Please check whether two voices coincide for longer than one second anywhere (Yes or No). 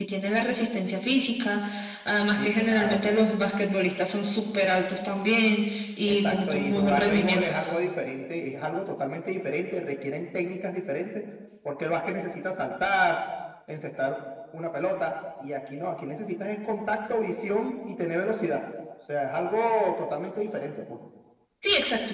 Yes